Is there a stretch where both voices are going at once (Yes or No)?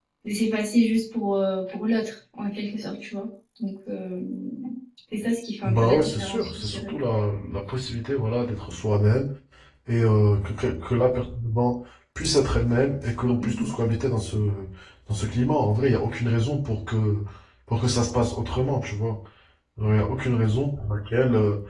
Yes